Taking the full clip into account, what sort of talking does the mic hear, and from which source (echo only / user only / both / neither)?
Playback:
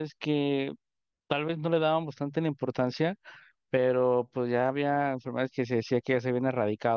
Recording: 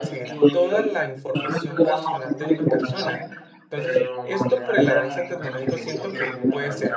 both